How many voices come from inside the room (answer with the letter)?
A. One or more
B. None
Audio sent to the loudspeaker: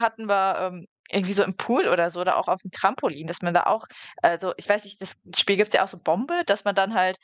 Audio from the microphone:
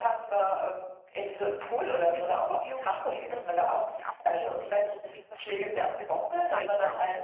A